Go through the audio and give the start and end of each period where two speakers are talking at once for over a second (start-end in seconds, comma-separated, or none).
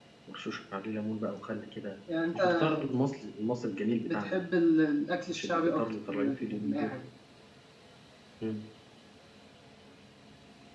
5.3-6.9